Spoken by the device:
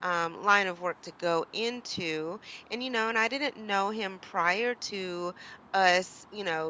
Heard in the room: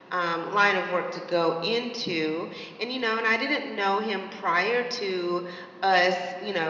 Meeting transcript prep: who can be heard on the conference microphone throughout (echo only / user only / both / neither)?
echo only